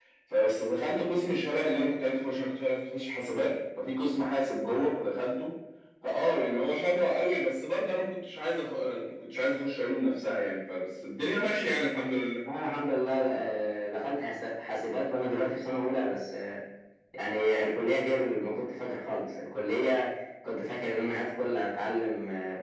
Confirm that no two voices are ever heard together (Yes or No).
Yes